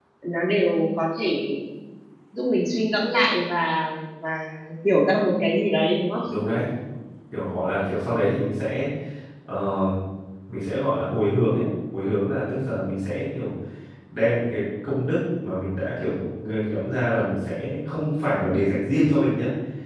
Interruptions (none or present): none